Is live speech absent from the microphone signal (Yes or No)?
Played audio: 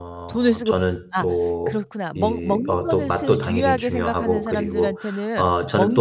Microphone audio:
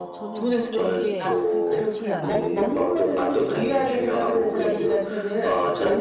No